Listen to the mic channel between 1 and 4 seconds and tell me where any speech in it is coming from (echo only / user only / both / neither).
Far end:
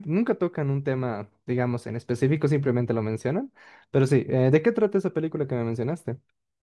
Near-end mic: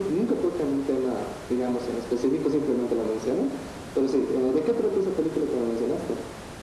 echo only